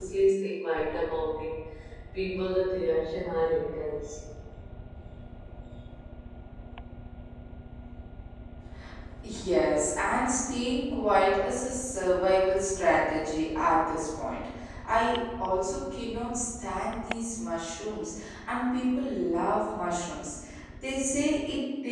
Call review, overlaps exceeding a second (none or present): none